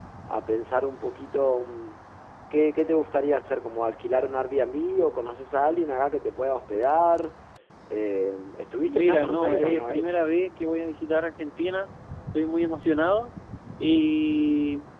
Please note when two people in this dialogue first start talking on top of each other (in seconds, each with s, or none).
8.8 s